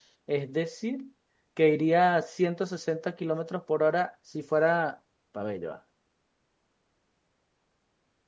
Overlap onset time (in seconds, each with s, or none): none